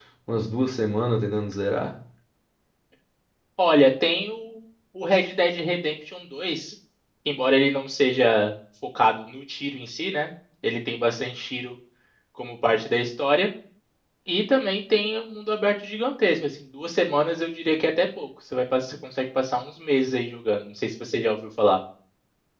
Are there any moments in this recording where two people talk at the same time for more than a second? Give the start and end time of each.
none

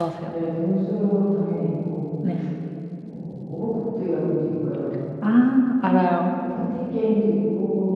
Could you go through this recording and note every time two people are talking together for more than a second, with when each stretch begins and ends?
none

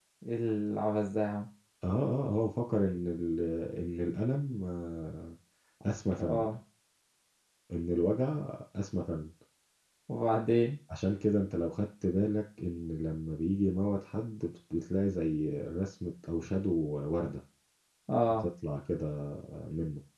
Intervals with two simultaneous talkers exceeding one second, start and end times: none

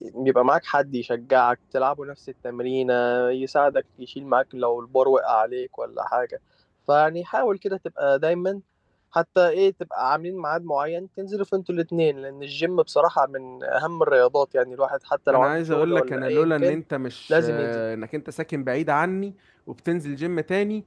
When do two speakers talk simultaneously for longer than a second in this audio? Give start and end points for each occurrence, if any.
15.3-16.8

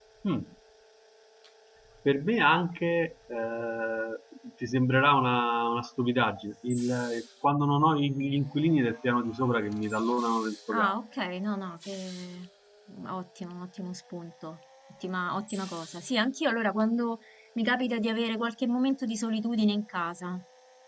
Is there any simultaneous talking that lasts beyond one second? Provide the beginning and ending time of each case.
none

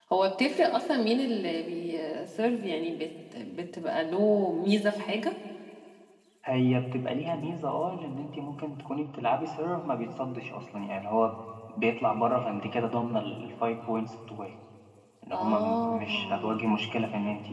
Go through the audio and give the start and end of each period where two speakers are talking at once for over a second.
15.3-16.6

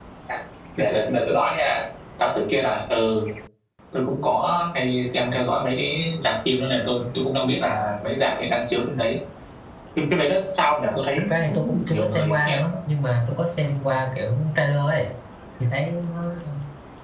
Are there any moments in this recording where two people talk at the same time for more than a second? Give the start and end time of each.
11.2-12.7

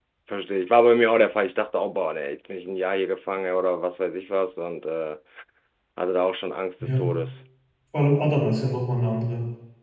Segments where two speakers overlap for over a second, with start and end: none

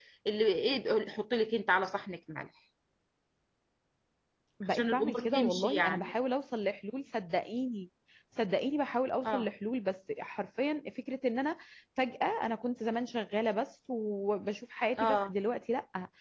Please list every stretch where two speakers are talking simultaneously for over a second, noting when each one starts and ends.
4.7-6.1

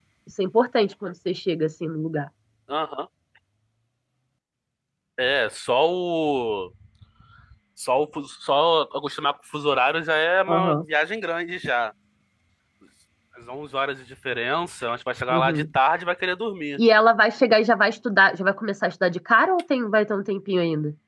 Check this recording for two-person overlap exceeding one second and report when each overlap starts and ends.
none

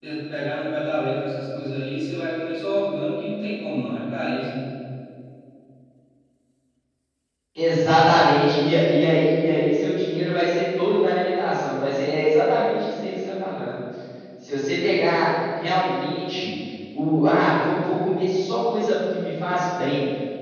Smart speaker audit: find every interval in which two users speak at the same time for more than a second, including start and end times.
none

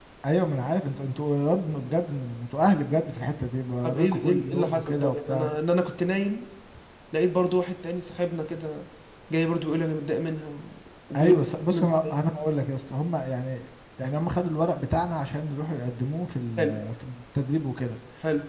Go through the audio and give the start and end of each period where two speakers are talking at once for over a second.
3.8-5.5

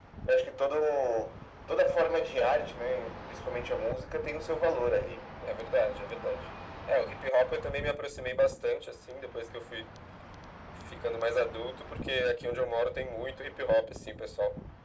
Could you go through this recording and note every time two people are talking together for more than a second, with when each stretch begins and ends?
none

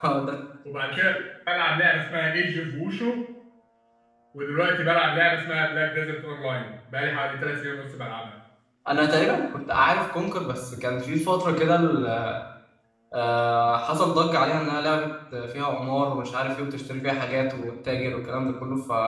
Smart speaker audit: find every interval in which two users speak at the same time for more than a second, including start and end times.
none

